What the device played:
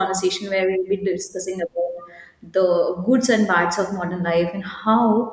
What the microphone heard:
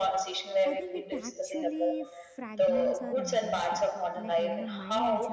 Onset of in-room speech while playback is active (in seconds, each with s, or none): 0.7 s